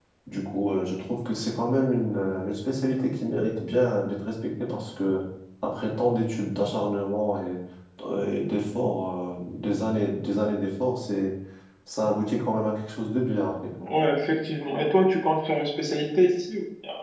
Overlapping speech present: No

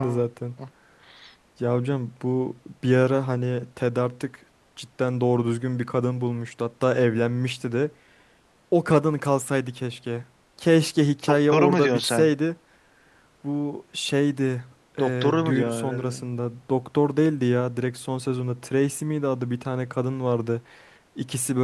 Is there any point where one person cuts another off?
Yes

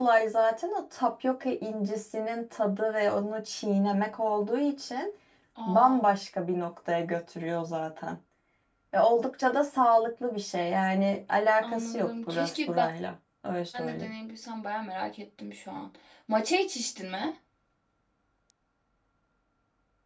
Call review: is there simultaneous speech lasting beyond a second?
Yes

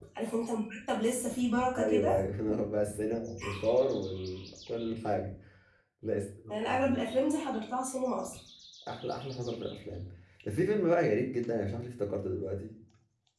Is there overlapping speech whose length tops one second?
No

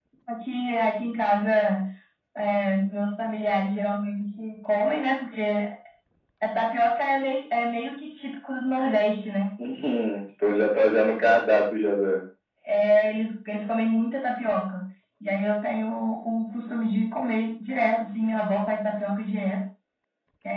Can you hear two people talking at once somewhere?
No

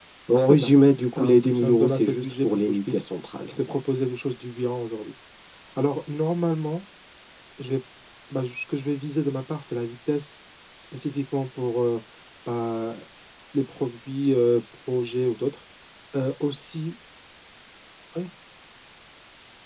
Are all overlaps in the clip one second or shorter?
No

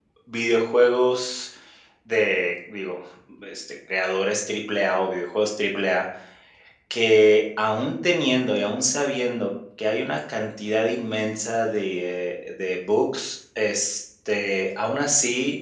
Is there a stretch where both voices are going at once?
No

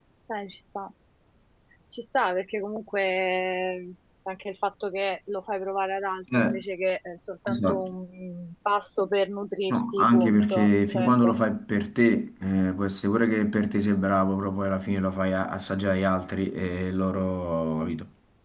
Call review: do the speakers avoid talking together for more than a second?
No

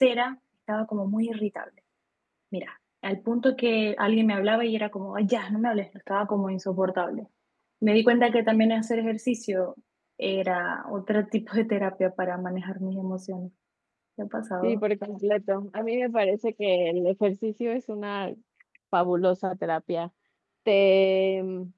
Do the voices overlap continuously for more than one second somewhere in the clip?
No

